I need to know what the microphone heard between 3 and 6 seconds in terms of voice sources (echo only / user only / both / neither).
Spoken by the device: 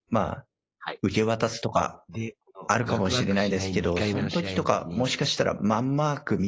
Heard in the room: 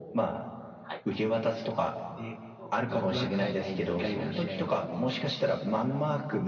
echo only